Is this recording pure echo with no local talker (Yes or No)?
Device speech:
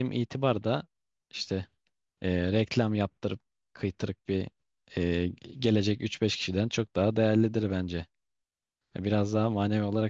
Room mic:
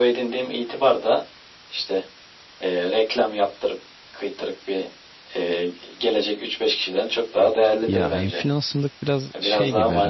No